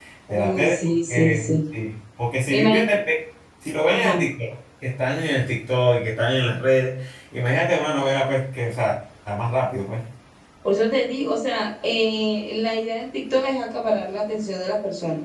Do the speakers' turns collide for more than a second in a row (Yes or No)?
Yes